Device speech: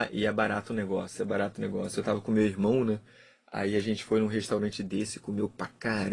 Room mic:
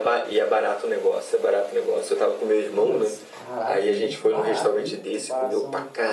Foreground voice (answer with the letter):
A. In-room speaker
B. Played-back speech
B